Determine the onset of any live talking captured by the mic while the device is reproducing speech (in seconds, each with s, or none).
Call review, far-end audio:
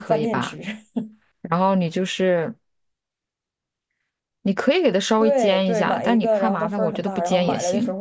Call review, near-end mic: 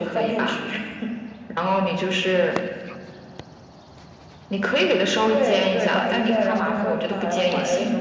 none